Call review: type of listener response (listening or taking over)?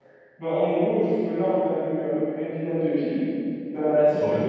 listening